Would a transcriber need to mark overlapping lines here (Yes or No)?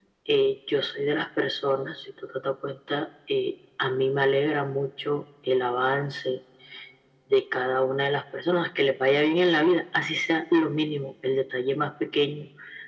No